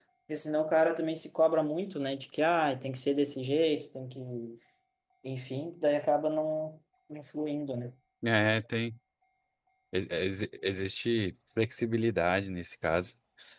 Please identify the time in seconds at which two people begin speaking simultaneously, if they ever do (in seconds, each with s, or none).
none